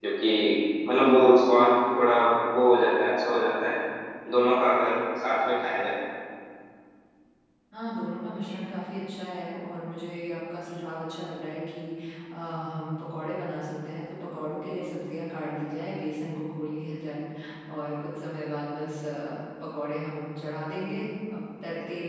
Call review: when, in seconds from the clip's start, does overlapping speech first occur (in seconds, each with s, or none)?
none